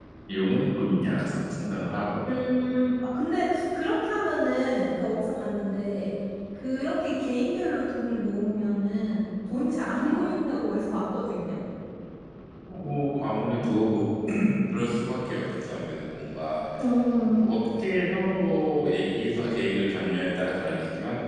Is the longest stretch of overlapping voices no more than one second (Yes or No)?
Yes